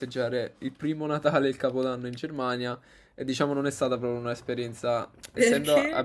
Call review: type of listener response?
listening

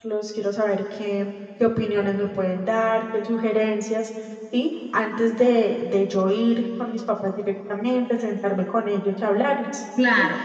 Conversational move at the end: taking over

